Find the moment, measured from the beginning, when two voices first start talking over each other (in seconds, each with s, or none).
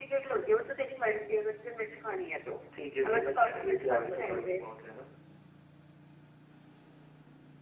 3.0 s